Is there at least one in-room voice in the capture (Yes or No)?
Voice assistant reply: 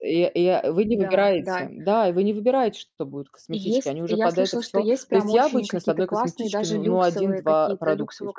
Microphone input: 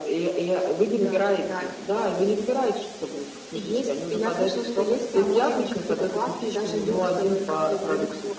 No